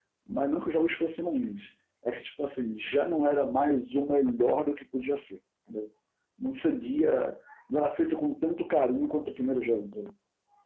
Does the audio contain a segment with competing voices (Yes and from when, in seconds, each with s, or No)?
No